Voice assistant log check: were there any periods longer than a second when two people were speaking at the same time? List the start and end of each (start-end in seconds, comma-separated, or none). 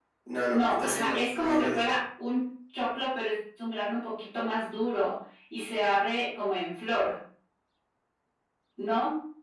0.5-2.0